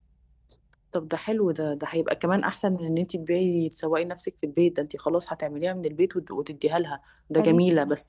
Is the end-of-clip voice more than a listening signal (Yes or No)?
No